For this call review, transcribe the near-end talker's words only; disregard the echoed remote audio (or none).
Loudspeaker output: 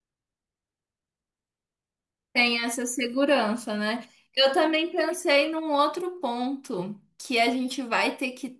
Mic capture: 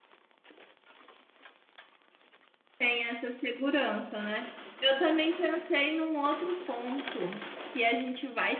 none